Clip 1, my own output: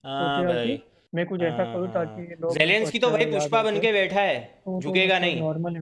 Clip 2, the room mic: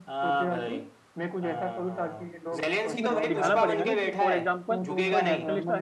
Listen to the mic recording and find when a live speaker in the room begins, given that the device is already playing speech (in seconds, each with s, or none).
2.9 s